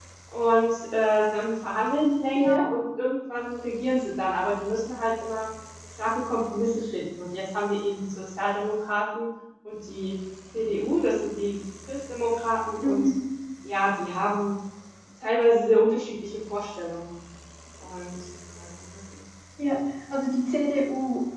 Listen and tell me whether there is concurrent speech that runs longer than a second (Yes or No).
No